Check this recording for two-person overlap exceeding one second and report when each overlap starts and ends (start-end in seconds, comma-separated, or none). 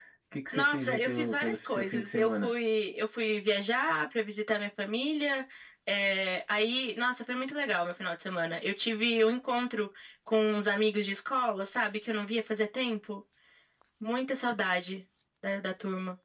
0.5-2.5